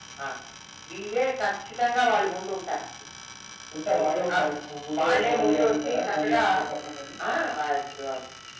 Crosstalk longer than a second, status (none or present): present